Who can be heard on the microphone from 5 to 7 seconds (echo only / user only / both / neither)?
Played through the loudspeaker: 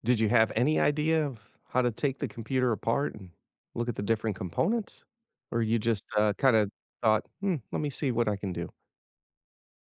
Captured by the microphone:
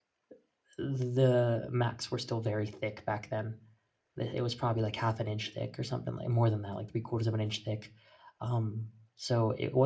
user only